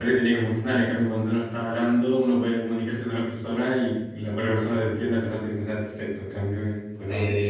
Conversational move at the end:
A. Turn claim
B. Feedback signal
A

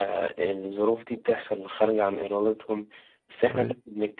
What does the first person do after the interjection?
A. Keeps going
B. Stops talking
A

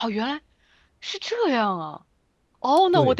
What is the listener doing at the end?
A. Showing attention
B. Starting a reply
A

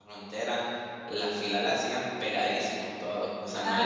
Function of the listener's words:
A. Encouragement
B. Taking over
A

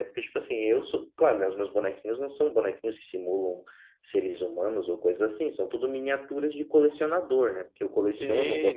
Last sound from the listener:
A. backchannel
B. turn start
B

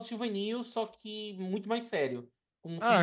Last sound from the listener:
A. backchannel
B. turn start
B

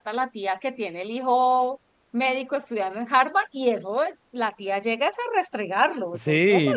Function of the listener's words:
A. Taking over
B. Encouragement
A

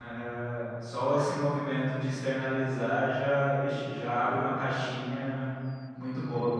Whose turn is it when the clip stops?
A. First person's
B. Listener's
B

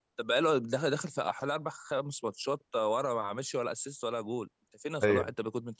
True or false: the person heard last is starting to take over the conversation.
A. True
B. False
B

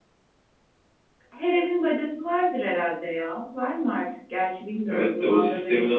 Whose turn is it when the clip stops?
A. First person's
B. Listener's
B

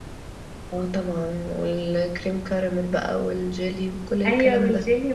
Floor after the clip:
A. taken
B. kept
A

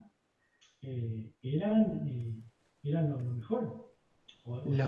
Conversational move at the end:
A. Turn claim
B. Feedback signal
B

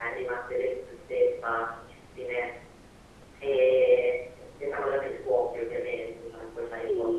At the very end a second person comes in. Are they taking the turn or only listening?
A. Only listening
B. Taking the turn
B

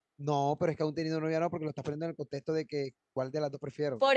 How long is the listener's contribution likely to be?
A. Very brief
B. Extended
B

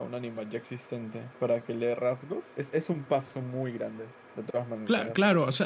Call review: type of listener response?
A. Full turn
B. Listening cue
A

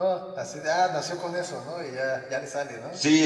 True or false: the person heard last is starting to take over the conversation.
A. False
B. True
B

